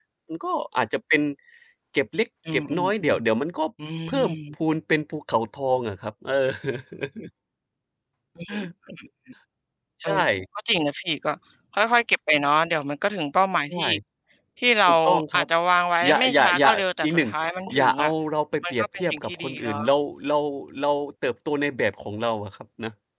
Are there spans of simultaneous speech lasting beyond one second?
Yes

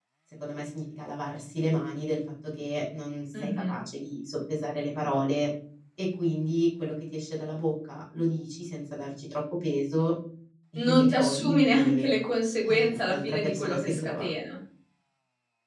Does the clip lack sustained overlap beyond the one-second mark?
No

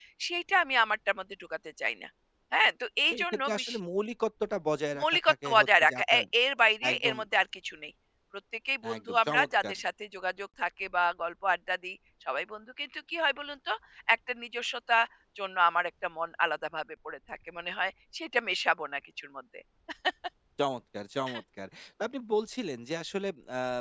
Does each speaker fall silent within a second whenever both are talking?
No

